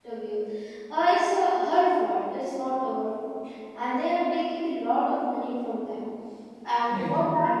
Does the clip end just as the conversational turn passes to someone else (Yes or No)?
No